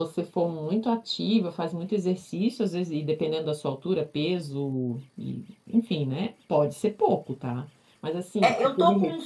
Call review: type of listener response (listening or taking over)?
taking over